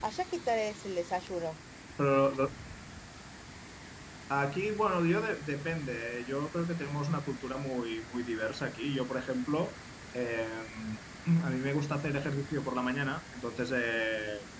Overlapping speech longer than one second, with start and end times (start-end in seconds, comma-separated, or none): none